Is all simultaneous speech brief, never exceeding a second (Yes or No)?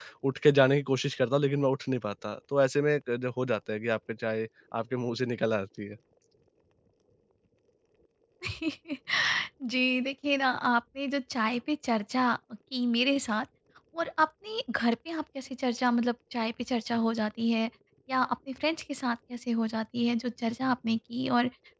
Yes